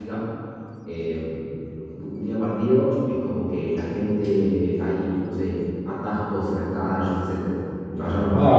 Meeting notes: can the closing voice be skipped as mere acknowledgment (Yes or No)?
No